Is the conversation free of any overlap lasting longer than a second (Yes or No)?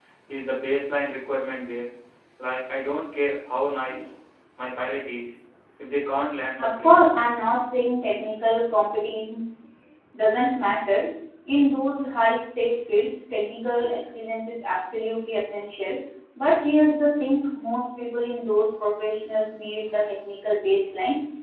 Yes